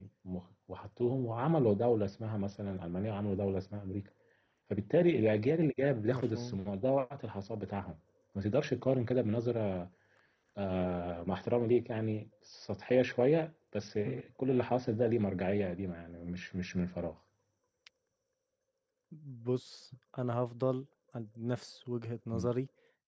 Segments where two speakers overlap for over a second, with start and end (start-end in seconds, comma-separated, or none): none